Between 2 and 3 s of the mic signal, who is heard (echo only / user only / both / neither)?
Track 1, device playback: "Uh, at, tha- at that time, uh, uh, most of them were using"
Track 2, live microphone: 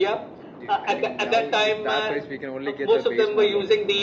both